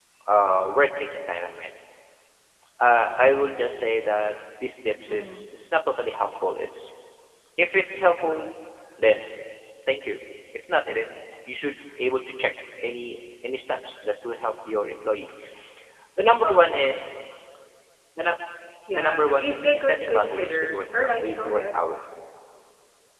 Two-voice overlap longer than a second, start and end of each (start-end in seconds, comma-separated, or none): 18.9-21.8